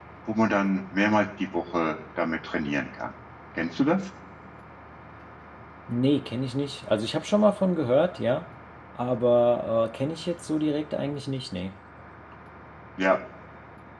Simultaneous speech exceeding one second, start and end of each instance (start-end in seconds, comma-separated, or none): none